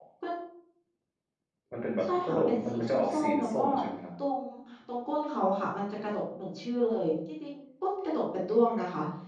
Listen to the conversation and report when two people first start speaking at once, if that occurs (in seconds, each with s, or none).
2.0 s